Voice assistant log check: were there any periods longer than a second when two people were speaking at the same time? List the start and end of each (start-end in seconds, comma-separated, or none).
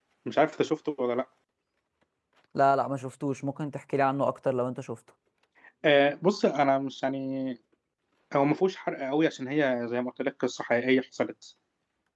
none